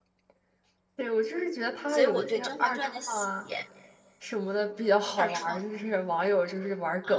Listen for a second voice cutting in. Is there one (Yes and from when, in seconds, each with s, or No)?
Yes, from 1.9 s